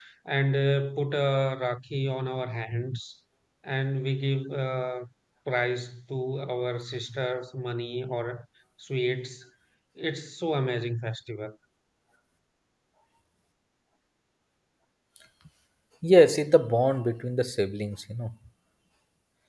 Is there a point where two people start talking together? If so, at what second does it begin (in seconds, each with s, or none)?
none